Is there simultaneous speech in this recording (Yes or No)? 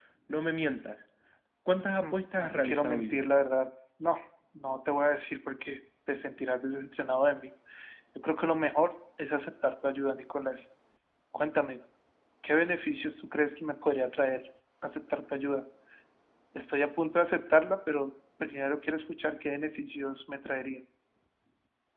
Yes